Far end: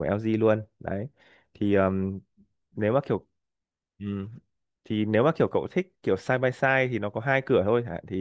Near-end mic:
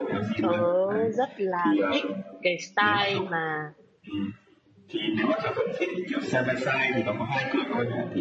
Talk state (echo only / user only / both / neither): both